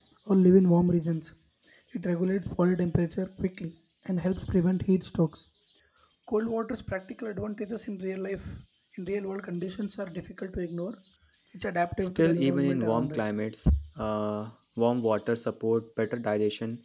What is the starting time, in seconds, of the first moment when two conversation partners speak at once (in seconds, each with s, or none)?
12.0 s